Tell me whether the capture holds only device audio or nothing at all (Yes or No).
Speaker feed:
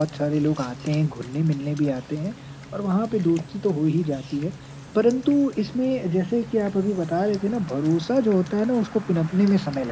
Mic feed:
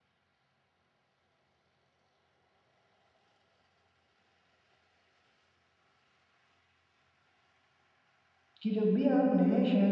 No